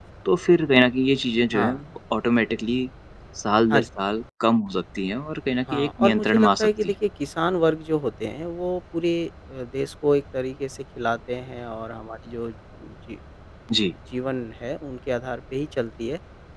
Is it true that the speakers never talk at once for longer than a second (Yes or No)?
No